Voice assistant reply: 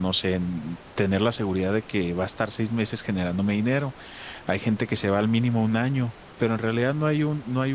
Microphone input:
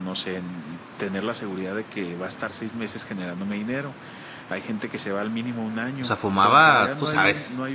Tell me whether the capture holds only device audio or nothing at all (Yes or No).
No